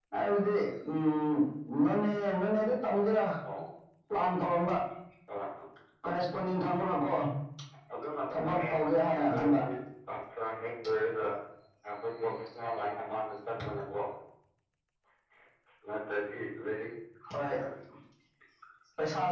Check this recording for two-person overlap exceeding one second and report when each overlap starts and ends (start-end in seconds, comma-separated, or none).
8.3-9.5